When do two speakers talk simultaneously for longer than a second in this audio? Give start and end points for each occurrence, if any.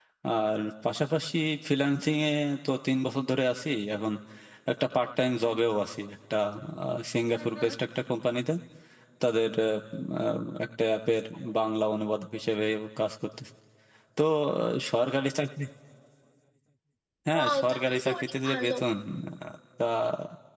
17.3-18.7

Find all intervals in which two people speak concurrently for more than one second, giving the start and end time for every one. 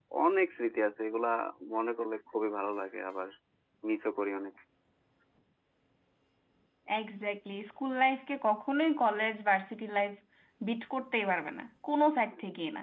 none

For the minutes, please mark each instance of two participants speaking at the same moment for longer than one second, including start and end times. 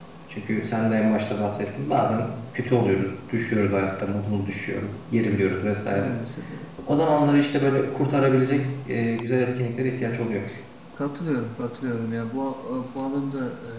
none

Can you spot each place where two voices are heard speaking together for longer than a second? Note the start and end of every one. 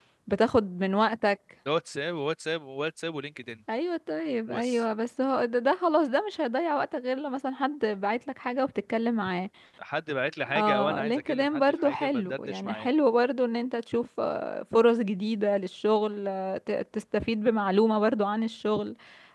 10.6-12.9

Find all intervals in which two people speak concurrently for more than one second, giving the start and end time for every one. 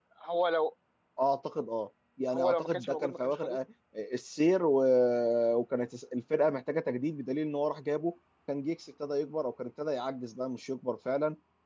2.3-3.6

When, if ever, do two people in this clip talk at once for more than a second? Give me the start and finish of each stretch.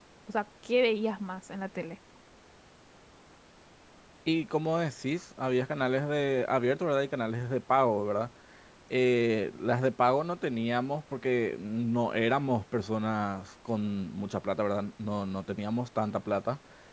none

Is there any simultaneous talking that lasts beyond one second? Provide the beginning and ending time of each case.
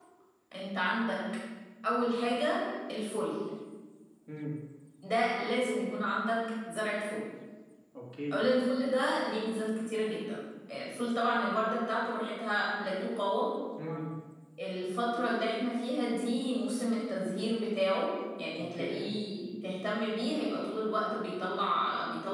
none

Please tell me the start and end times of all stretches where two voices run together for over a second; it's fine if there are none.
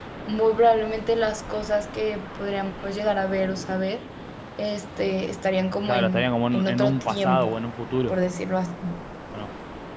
5.8-7.6

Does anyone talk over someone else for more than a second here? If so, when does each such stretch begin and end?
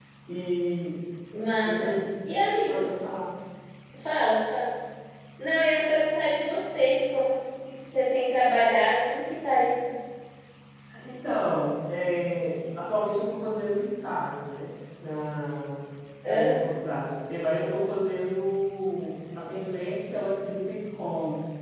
none

